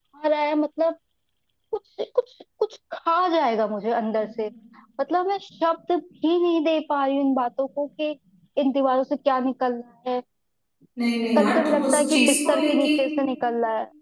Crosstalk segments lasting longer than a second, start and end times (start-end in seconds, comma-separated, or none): 11.4-12.9